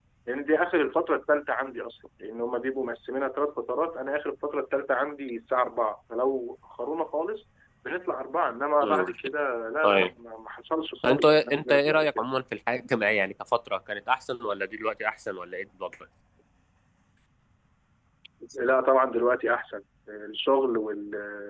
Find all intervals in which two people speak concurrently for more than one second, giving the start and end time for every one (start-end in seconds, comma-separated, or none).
11.1-12.2